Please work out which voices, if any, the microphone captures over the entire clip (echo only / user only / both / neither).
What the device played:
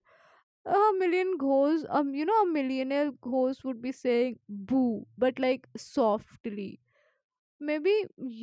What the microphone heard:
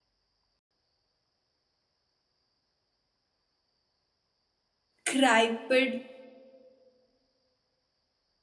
user only